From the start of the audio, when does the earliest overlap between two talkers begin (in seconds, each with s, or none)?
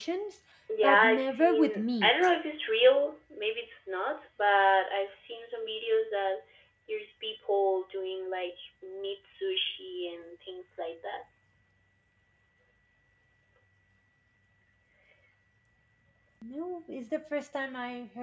0.8 s